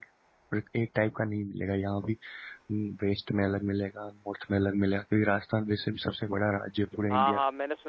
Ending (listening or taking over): taking over